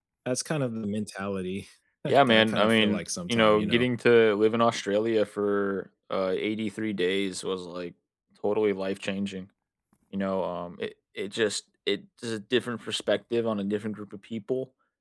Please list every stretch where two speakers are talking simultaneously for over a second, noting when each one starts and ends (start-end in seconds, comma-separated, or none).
2.1-3.9